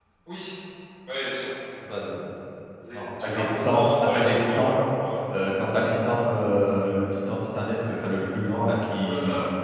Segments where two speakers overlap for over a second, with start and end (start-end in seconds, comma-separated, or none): 2.9-4.8